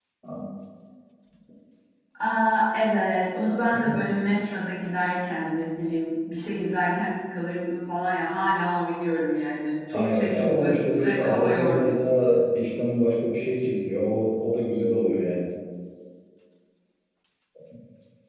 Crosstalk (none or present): present